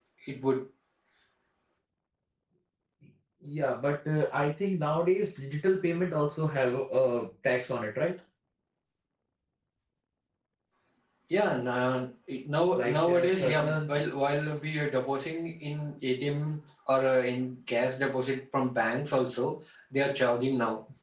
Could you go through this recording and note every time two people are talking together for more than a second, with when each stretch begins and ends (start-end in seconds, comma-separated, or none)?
12.8-14.0